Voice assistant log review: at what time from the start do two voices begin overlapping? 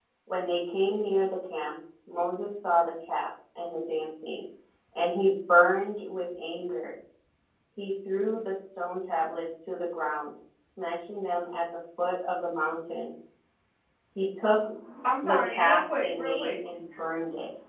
15 s

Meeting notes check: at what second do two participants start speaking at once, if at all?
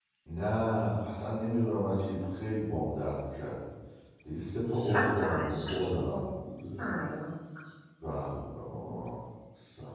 5 s

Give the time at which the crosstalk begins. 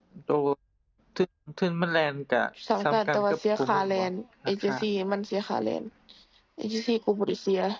3 s

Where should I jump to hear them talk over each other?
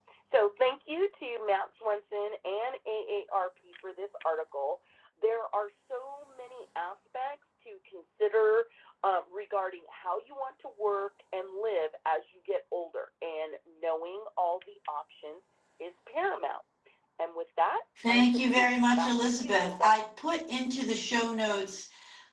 18 s

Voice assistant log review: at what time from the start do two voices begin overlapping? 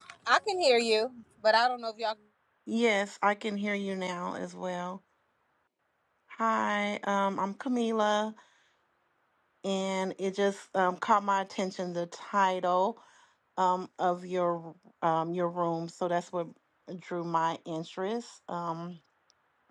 none

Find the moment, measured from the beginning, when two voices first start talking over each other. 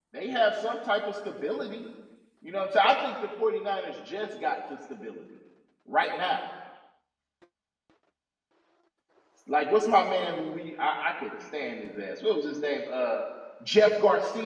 none

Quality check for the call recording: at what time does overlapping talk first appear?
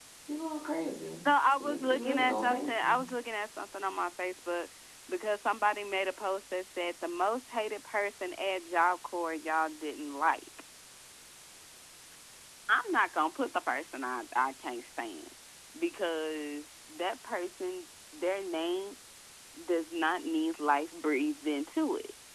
2 s

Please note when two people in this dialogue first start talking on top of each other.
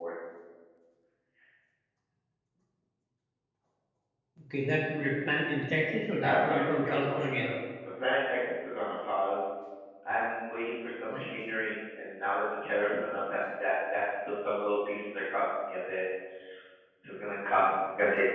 6 s

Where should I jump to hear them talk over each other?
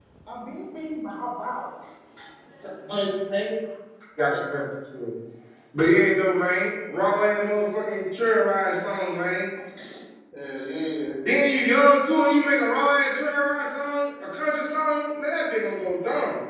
none

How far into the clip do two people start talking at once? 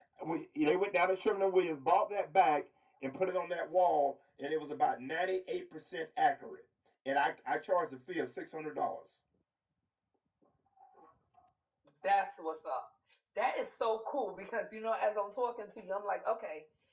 none

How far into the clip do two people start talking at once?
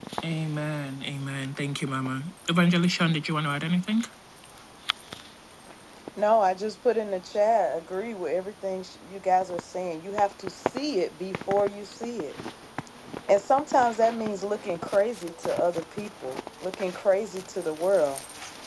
none

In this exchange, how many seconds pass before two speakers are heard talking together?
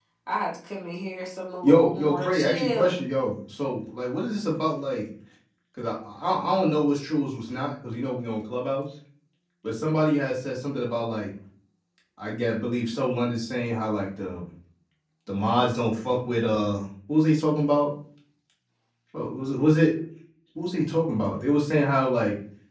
2 s

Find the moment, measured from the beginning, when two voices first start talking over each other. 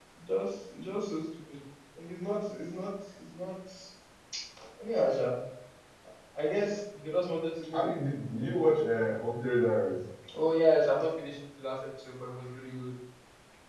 none

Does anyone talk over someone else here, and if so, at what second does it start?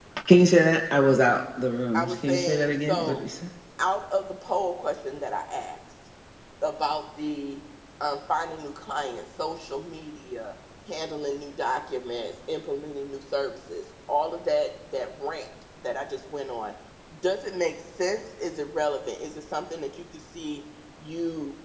2 s

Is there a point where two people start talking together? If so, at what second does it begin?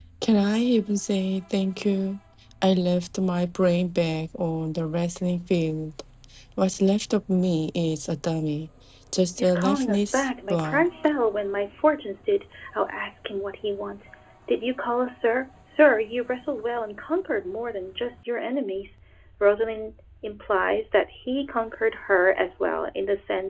9 s

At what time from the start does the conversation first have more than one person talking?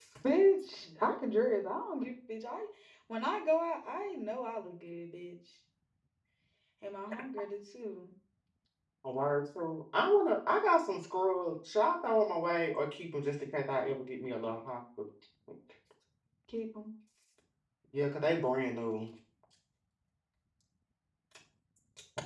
none

